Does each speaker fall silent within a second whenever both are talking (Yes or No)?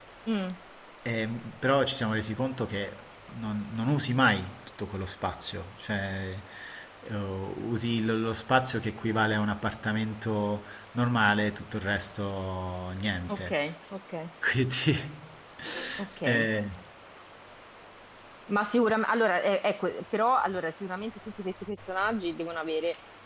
Yes